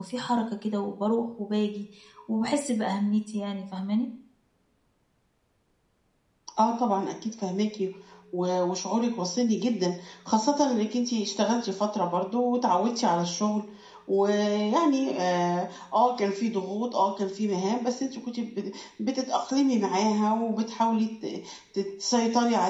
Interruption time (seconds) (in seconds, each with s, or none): none